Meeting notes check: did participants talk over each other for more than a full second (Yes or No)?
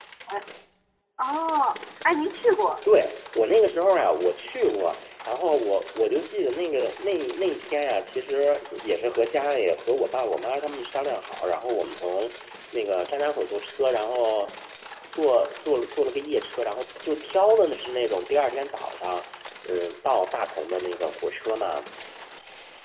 No